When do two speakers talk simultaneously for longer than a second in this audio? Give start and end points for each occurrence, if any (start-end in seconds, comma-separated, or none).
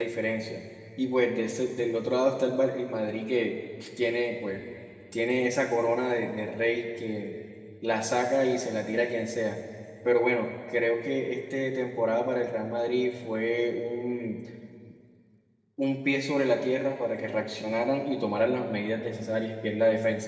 none